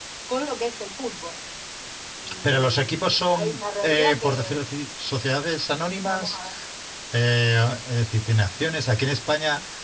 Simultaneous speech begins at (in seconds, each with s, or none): 2.4 s